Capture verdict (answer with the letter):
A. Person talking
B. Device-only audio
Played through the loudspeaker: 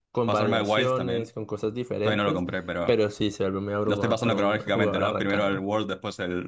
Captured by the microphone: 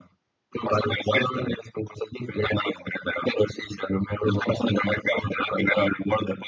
B